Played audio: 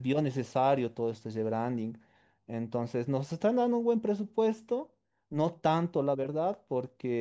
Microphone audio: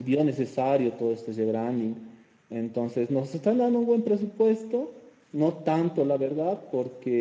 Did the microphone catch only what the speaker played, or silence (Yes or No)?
Yes